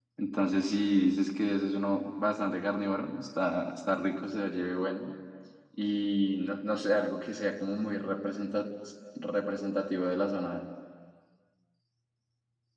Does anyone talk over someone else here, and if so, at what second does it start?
none

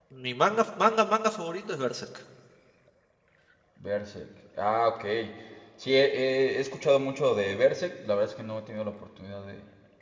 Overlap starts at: none

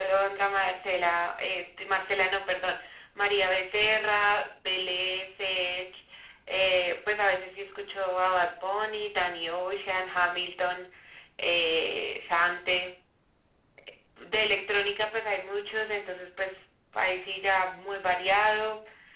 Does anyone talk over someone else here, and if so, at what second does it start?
none

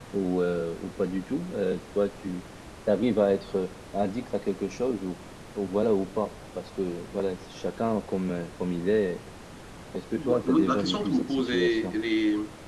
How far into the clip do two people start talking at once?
10.2 s

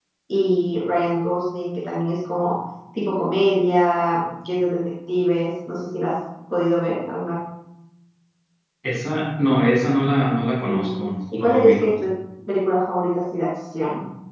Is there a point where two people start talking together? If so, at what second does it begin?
10.6 s

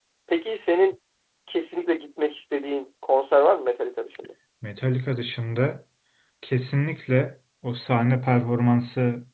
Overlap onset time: none

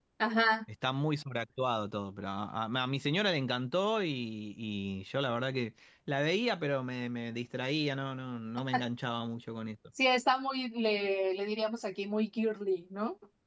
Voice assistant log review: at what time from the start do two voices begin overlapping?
none

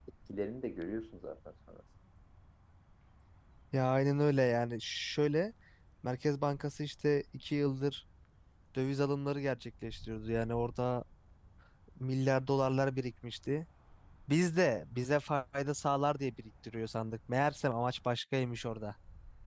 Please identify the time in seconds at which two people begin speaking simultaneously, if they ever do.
none

